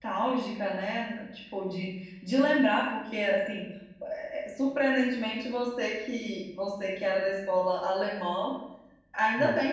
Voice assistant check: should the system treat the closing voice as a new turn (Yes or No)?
No